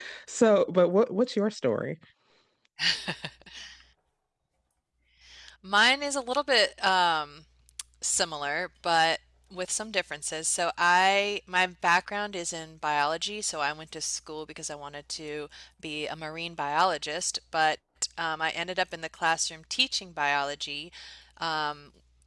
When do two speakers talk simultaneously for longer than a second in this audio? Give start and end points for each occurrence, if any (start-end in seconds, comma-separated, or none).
none